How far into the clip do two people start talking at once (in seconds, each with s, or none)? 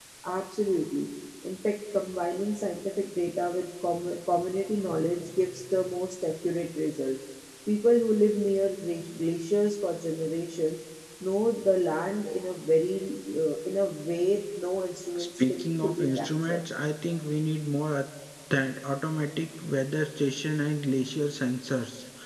15.2 s